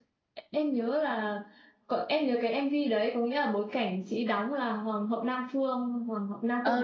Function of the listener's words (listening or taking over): taking over